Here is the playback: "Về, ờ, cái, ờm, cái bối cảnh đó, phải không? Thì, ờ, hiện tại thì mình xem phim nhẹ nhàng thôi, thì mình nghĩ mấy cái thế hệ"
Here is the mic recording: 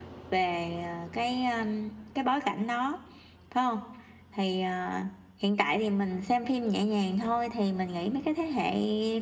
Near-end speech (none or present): none